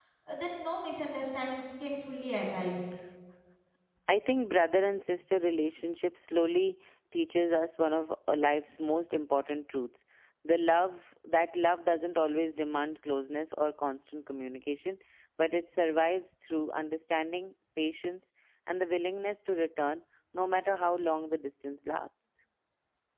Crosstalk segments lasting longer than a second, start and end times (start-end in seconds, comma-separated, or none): none